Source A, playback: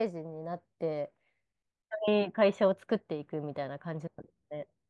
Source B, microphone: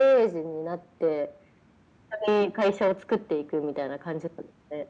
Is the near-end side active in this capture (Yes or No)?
No